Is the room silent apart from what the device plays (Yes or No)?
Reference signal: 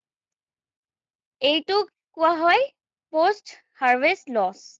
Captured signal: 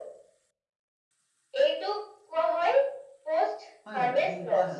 No